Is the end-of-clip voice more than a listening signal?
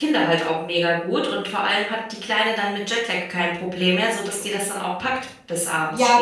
Yes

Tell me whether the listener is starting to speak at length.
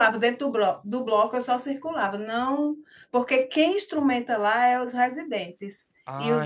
Yes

